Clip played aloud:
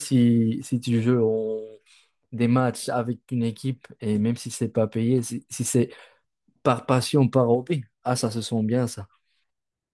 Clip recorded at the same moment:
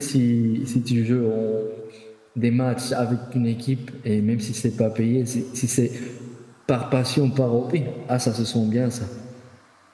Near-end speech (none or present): none